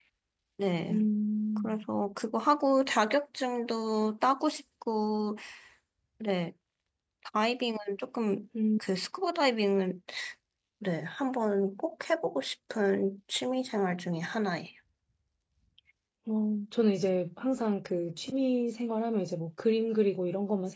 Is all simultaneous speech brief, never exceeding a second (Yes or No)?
Yes